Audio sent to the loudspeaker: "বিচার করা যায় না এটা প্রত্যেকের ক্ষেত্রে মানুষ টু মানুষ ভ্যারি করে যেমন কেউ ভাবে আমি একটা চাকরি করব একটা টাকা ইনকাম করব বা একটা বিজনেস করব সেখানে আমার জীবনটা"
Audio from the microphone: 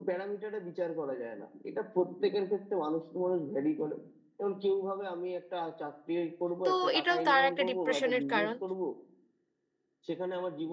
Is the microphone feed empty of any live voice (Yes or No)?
No